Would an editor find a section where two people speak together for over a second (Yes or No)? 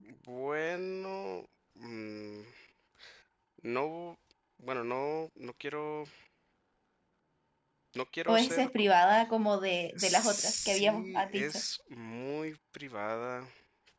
Yes